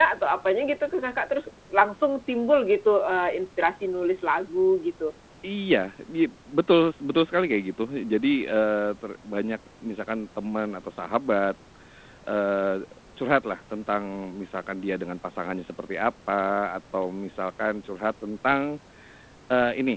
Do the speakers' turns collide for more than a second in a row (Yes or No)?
No